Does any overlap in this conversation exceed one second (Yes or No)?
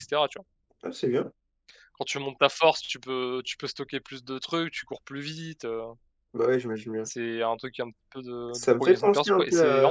Yes